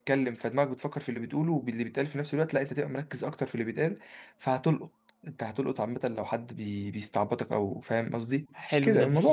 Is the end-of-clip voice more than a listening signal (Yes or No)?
Yes